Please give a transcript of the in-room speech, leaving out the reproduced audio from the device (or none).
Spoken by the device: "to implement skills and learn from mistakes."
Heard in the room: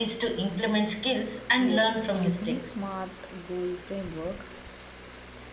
Yes, using the SMART goal framework,